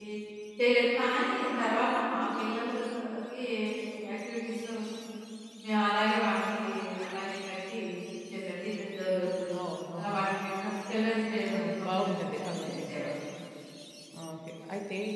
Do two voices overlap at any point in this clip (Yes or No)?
Yes